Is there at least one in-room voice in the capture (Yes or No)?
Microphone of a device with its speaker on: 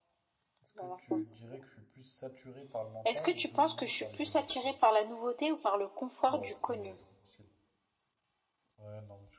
Yes